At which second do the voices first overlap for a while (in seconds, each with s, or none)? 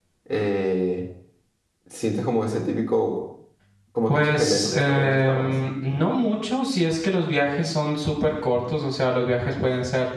4.1 s